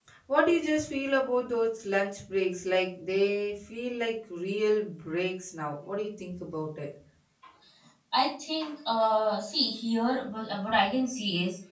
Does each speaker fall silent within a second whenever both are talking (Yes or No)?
Yes